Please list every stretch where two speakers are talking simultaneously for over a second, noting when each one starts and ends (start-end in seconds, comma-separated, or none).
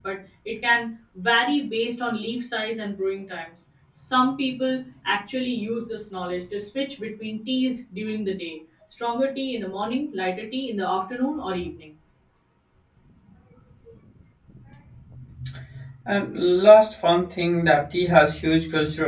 none